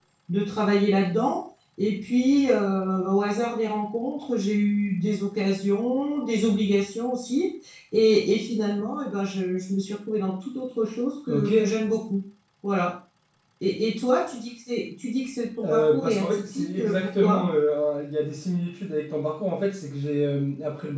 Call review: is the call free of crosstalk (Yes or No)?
No